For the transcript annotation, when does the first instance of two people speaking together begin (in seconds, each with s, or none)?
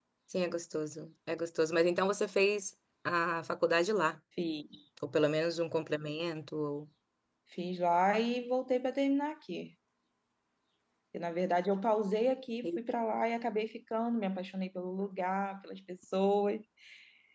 none